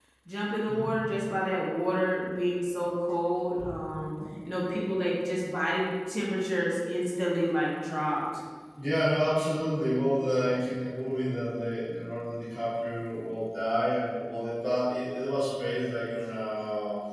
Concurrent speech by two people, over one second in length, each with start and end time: none

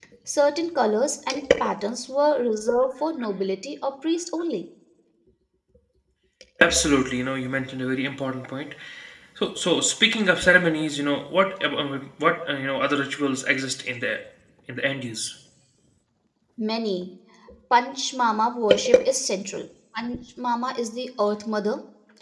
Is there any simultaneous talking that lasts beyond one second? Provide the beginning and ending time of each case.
none

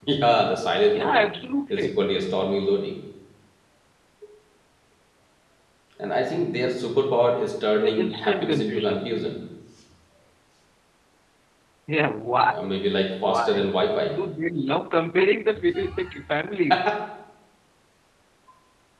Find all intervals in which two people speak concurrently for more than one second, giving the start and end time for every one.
7.8-9.0

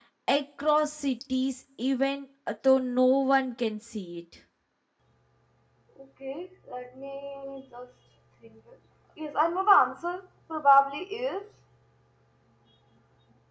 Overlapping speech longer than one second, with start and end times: none

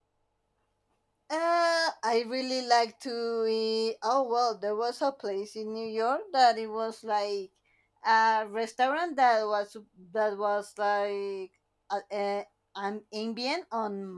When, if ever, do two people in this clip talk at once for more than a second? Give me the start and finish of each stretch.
none

